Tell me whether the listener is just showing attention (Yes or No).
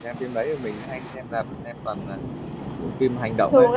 No